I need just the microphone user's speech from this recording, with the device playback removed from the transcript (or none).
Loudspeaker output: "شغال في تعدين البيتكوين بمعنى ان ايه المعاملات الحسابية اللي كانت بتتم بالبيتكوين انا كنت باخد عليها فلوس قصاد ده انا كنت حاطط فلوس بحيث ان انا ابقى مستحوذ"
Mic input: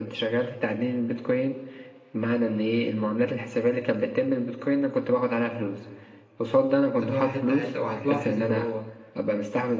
هتقع حته حته وهتلاحظ الوقوع